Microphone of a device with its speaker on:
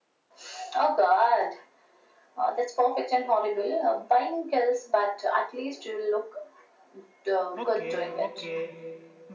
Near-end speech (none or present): present